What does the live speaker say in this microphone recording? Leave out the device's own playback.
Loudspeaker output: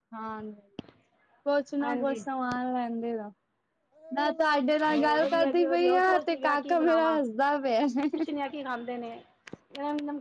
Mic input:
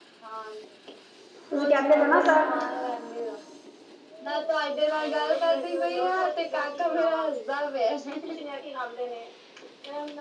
ਤੁਸੀਂ ਕਹਿੰਦੇ ਪਏ ਨਾ ਸਰ

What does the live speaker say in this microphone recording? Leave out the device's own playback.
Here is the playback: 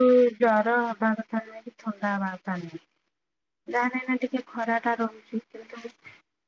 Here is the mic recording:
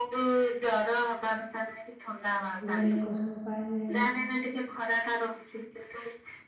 କୁଡିଆ ଲୋକ ସବୁ ପାଣିରେ

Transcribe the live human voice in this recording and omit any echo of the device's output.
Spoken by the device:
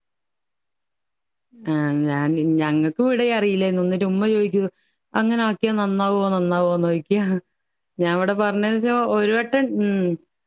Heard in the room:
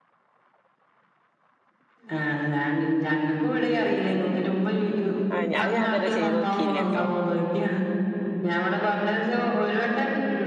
ആഹ് ഞാൻ അത് ഞാൻ ഇതുവരെ ചെയ്ത് നോക്കിയില്ലട്ടോ

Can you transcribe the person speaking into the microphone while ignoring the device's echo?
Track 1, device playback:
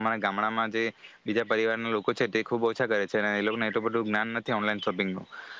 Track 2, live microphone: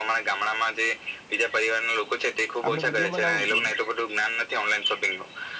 આપણે વિડીયો બનાવવુ જ જોઈએ.

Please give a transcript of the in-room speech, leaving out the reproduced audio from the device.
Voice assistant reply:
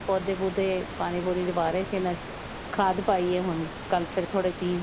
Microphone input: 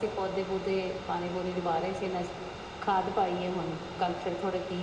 none

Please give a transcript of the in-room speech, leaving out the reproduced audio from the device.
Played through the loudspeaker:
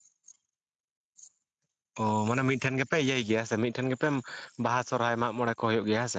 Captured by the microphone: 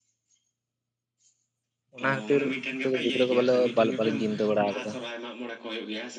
ᱚᱱᱟ ᱠᱷᱟᱹᱛᱤᱨ, ᱱᱤᱛᱚᱜ ᱜᱤᱫᱽᱨᱟᱹ ᱠᱚ, ᱵᱚᱞᱮ ᱵᱟᱞᱤᱧ ᱪᱤᱱᱛᱟᱹ ᱵᱟᱲᱟ ᱟᱠᱟᱫᱟ᱾

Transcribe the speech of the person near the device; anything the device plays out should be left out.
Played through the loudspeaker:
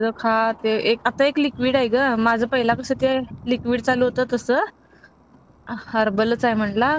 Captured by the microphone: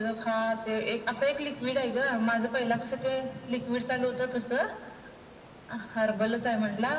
none

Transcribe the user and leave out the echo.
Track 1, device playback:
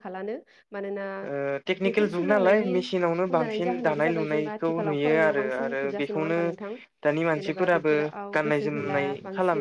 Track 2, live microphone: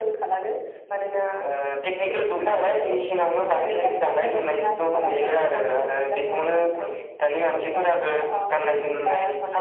आरोखि ना माने गोजानाव दोननो हमबाय आरो गावबा गावनो

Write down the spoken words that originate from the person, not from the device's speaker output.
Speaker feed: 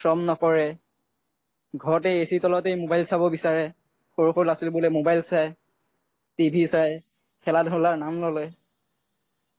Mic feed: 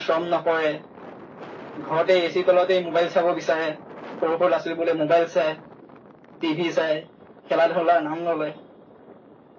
none

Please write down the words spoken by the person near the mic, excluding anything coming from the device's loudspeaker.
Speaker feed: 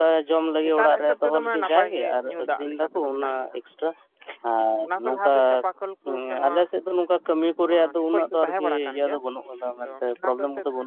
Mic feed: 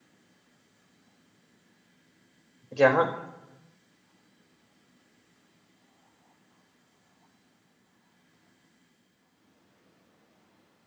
ᱜᱮᱭᱟ ᱦᱟᱸᱜ

